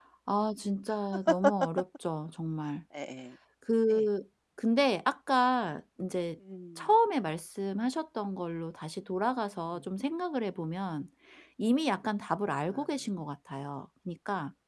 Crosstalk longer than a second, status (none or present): none